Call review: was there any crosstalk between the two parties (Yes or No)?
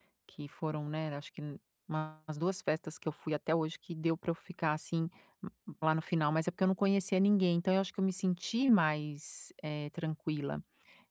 No